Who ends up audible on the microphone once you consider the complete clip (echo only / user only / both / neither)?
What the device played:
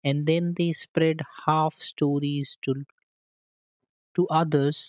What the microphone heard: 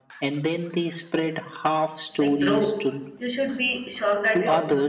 both